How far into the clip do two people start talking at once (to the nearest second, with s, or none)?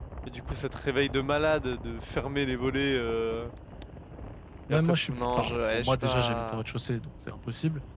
5 s